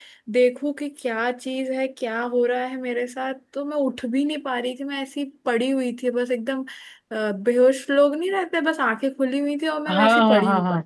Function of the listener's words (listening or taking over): taking over